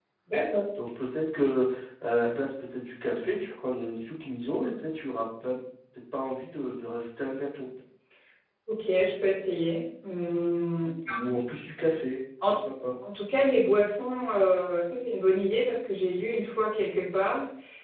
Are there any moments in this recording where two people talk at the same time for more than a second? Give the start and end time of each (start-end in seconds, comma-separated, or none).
none